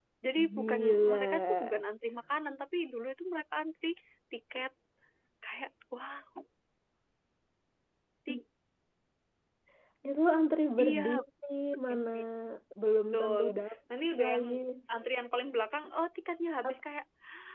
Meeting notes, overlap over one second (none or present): present